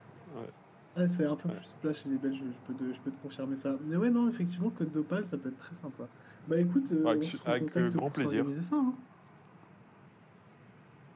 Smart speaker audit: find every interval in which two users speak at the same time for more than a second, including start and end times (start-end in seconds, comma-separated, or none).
7.0-8.5